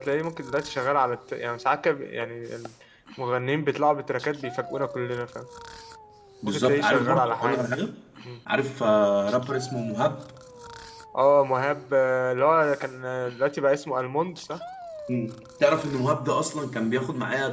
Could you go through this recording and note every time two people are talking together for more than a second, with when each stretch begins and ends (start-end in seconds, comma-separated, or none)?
6.5-7.7